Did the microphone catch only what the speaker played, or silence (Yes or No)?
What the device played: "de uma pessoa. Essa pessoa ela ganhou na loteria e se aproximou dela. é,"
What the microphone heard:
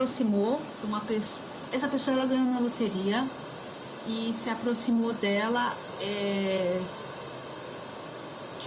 Yes